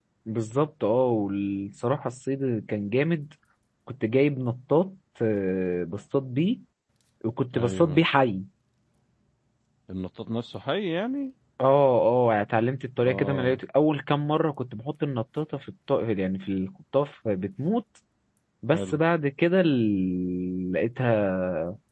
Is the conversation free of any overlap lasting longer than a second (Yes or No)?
Yes